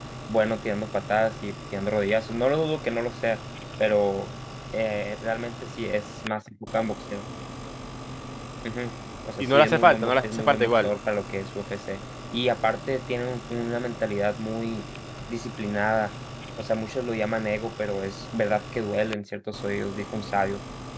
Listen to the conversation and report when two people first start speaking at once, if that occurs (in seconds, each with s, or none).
9.4 s